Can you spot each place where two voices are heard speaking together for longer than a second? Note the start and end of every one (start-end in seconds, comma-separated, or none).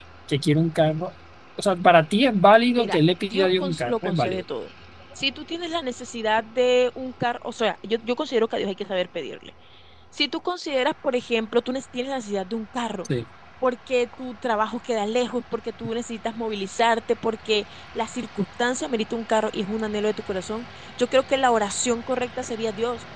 2.7-4.4